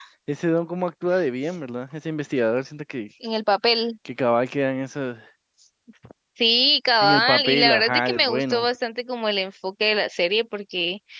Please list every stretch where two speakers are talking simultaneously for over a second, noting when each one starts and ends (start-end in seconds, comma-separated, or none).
7.0-8.7